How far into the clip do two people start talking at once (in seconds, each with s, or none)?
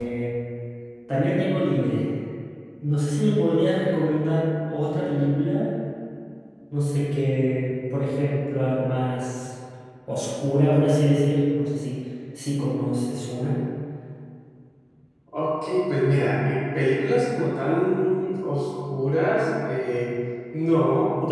none